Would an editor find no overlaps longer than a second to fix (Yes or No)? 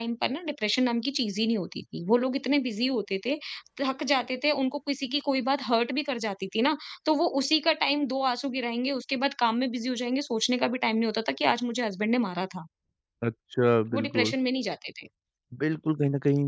Yes